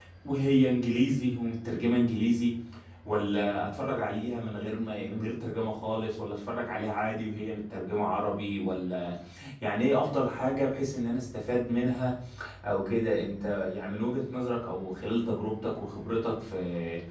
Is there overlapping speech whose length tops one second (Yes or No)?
No